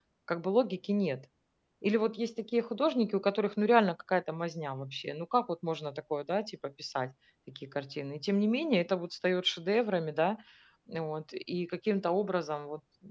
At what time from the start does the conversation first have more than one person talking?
none

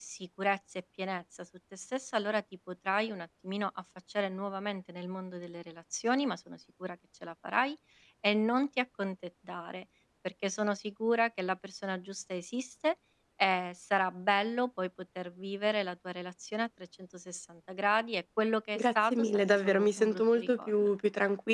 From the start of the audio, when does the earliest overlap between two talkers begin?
18.8 s

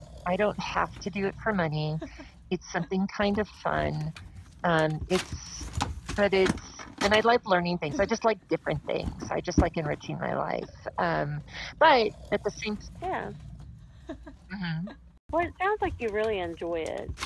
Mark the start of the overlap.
none

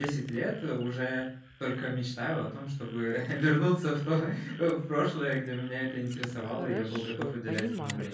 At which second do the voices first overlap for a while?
6.4 s

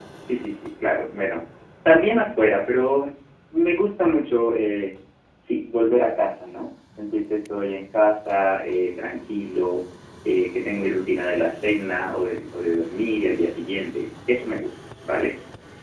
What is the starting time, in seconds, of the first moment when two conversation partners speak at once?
none

